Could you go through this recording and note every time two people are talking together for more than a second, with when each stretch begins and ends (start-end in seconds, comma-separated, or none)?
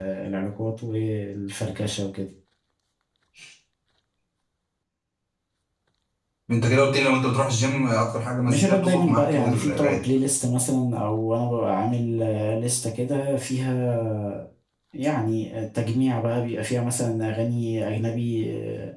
8.5-10.0